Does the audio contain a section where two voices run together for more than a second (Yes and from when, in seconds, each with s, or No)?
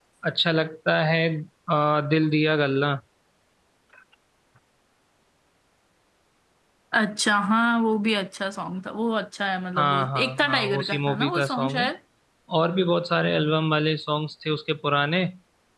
Yes, from 9.8 s